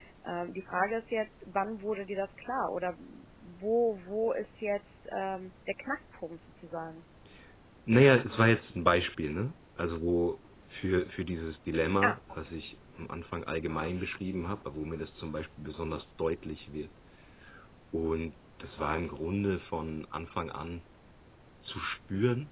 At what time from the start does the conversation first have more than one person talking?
none

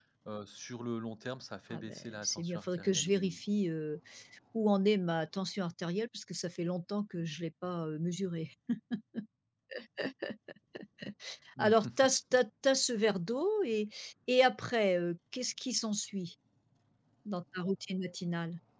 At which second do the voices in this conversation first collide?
1.7 s

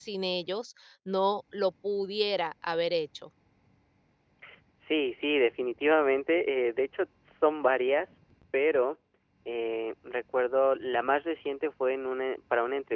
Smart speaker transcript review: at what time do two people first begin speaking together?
none

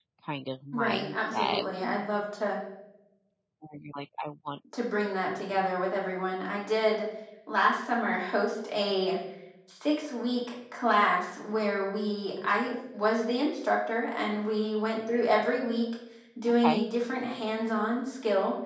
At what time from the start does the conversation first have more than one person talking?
0.7 s

